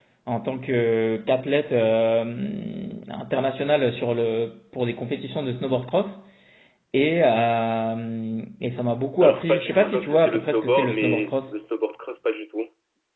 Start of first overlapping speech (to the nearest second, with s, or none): 9 s